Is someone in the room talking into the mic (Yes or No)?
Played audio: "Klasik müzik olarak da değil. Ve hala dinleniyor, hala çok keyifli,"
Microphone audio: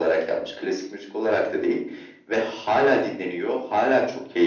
No